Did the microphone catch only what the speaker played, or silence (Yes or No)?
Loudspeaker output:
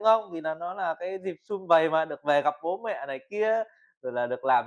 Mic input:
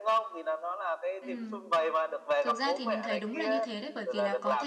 No